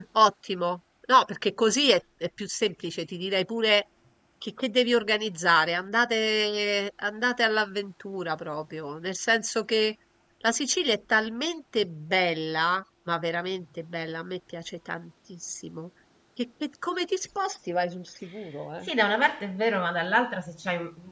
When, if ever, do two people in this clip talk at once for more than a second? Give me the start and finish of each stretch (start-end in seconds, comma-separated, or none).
none